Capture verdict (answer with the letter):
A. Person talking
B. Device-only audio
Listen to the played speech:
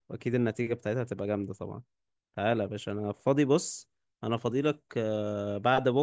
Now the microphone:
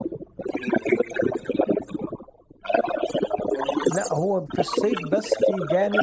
A